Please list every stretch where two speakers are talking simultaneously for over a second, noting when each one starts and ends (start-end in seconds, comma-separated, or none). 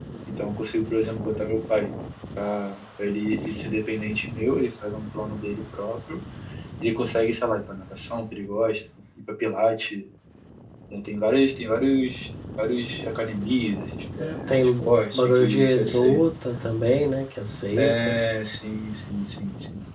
14.2-16.2